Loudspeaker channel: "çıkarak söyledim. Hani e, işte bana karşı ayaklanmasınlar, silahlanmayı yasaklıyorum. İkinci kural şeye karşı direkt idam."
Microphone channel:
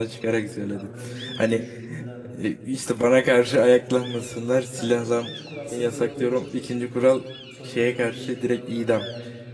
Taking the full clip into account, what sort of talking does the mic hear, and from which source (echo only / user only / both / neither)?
both